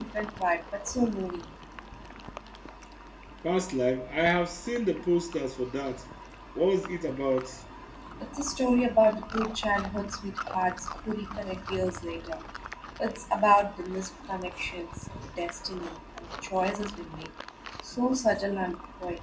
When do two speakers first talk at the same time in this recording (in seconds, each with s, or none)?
none